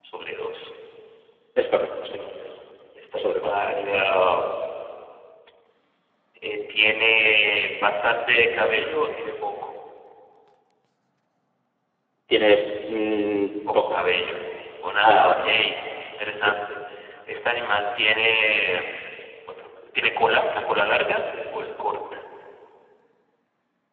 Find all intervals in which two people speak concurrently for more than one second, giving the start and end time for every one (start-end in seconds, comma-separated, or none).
none